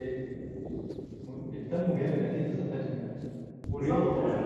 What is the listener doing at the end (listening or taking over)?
taking over